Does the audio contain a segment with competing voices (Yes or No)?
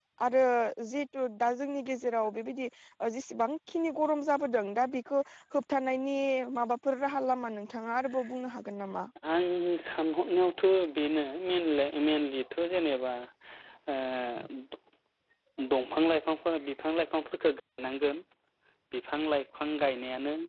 No